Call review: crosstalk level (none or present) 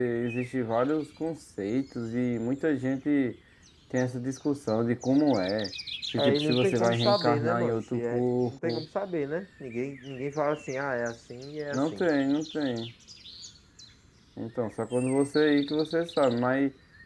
present